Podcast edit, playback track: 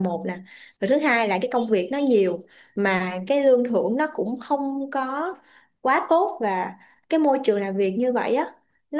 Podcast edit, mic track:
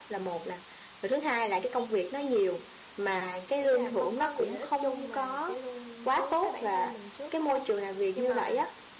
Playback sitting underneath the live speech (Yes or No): No